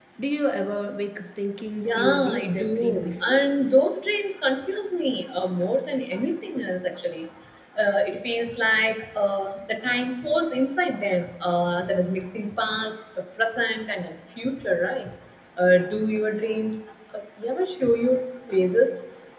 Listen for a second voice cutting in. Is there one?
Yes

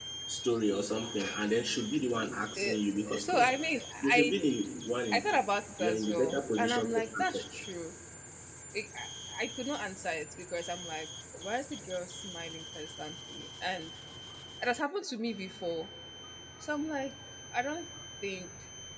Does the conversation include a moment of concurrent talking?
Yes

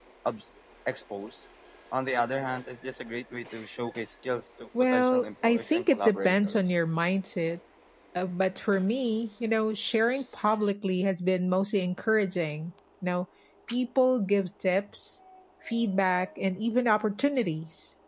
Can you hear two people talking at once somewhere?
Yes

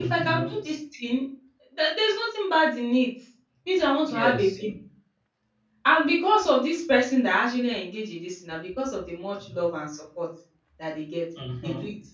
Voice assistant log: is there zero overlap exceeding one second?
Yes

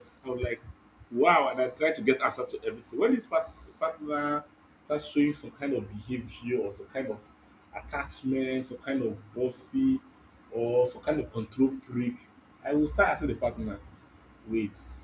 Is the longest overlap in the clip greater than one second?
No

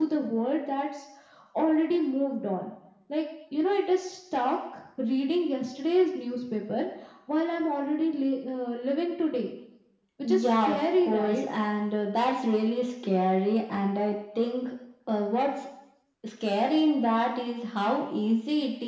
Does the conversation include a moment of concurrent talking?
Yes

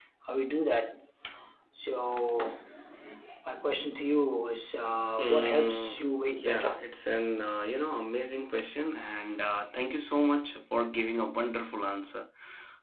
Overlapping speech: Yes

